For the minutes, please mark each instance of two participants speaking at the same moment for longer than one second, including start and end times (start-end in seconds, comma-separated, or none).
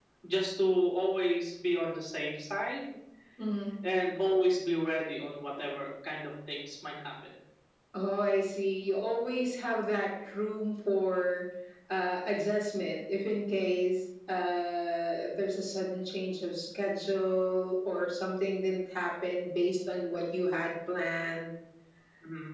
none